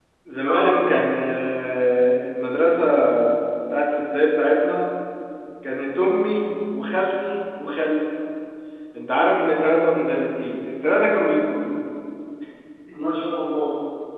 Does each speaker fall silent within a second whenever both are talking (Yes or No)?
Yes